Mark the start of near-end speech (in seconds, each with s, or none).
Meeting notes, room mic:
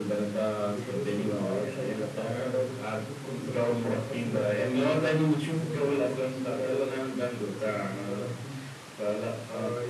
none